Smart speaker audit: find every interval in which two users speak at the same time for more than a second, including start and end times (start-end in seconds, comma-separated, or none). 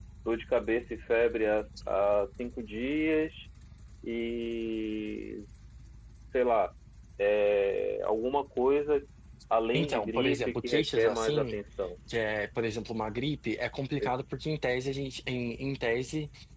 9.7-11.6